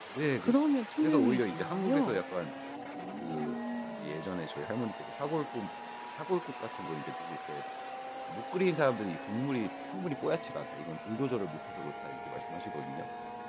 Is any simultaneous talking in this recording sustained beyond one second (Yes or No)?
Yes